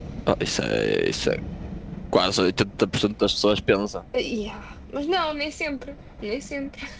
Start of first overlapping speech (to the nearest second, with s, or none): none